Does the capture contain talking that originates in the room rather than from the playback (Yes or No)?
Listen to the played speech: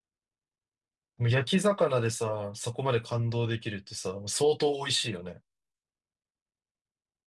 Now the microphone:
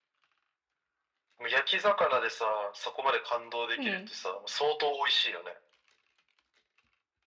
Yes